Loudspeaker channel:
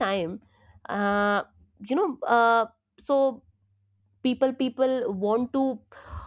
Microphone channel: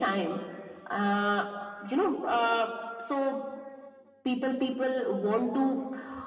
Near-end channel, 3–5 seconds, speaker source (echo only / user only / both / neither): echo only